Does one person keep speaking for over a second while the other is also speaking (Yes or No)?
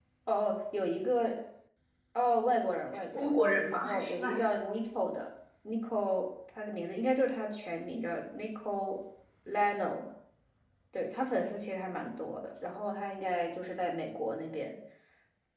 Yes